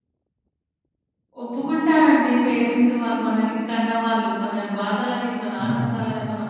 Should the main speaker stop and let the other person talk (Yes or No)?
No